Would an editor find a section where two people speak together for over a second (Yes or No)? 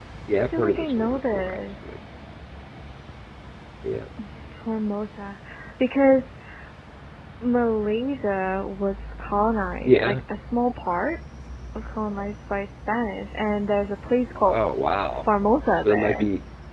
Yes